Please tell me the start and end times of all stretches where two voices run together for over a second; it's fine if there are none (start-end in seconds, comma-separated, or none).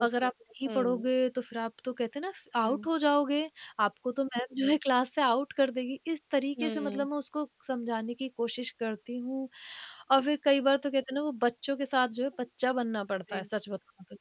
none